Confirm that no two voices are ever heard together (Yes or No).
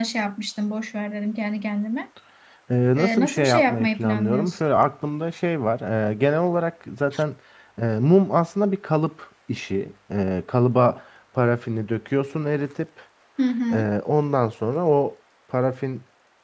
No